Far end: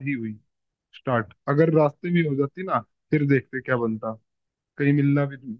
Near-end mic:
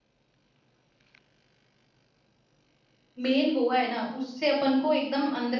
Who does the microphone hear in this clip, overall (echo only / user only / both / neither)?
user only